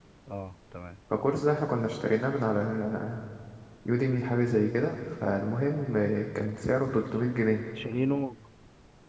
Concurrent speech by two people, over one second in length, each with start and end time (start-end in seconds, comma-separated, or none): none